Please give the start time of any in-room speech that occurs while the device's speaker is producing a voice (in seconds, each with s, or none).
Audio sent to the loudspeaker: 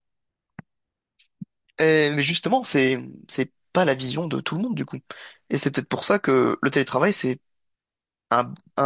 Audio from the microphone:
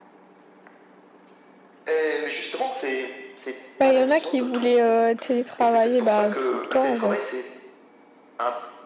3.8 s